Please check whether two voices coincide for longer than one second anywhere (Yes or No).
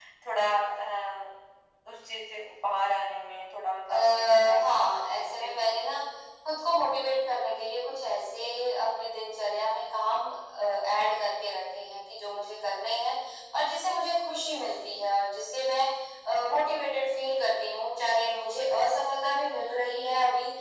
Yes